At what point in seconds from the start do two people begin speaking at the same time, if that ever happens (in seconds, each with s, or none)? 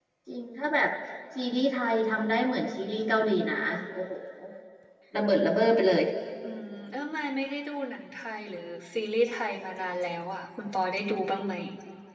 none